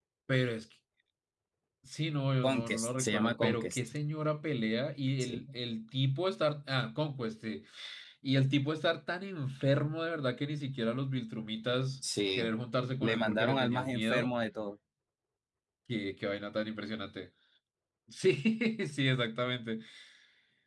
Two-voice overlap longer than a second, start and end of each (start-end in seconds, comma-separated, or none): 2.4-3.9, 13.0-14.3